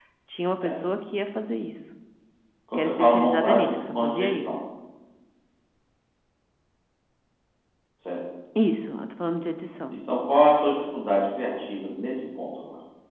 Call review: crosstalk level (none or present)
present